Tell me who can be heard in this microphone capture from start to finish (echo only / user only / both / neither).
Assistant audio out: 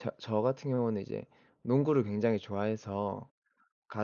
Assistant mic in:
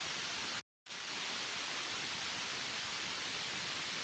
neither